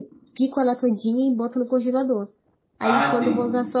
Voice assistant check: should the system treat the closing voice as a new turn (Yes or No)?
No